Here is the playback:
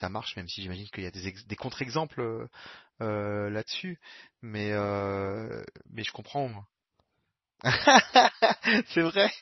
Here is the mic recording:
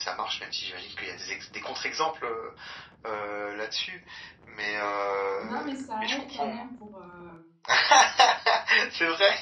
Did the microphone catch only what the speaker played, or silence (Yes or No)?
No